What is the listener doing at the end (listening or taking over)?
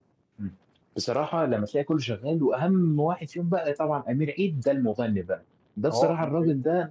listening